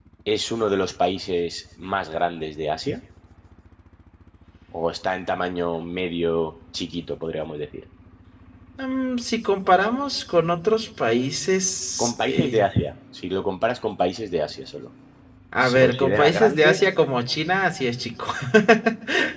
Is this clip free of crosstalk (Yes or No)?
No